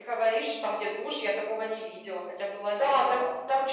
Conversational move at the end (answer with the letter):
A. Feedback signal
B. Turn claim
B